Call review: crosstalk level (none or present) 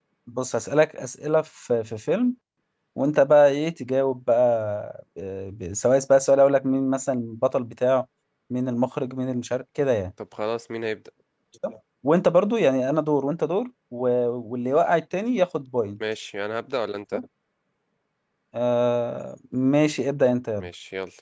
none